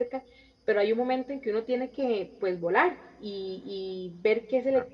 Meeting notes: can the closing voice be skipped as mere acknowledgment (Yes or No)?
Yes